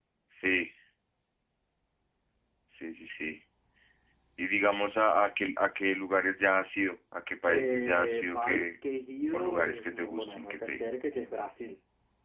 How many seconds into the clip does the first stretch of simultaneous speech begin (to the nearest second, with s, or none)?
7 s